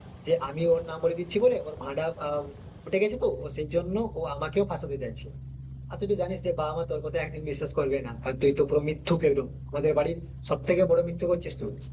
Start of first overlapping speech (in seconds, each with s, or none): none